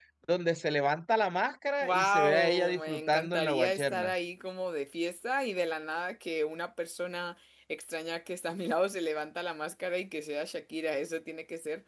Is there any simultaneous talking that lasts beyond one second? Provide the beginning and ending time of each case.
1.8-4.1

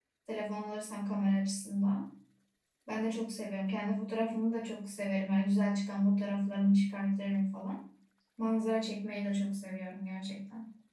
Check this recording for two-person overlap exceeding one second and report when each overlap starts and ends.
none

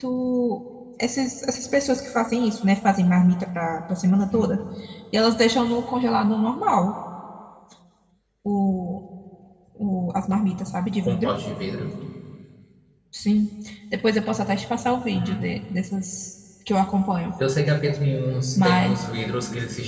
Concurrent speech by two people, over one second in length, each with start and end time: none

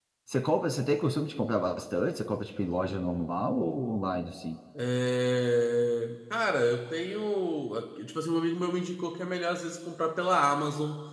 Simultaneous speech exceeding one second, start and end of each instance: none

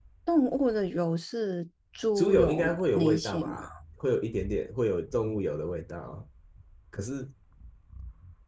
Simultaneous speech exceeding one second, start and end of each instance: 2.2-3.6

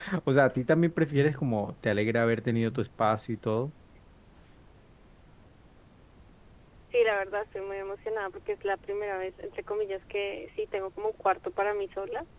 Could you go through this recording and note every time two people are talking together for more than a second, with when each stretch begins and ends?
none

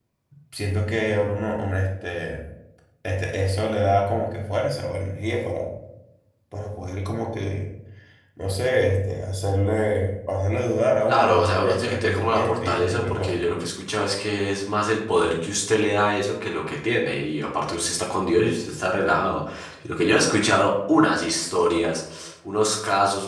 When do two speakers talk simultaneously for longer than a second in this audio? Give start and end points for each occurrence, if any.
11.1-13.4

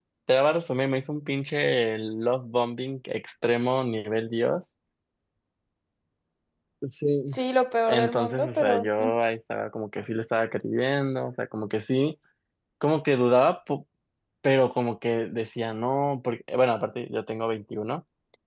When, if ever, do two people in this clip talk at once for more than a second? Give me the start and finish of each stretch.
7.9-9.1

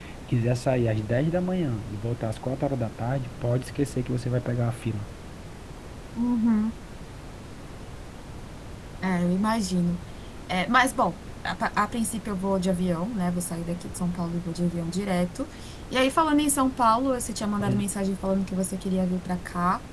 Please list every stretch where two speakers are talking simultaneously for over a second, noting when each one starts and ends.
none

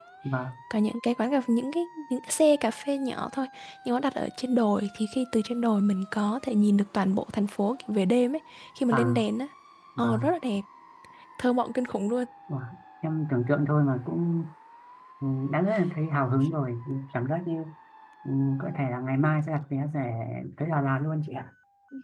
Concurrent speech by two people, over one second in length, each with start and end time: none

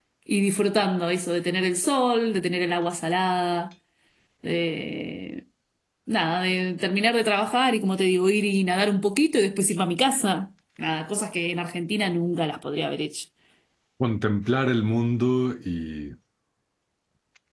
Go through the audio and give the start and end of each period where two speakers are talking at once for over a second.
none

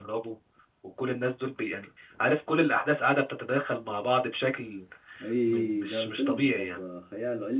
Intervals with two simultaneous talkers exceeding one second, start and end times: 5.5-6.8

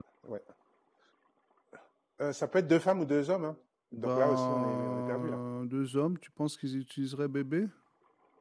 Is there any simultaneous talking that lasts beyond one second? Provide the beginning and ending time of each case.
3.9-5.4

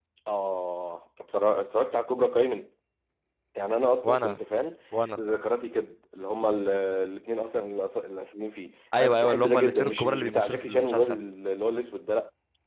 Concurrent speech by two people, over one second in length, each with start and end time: 8.9-11.2

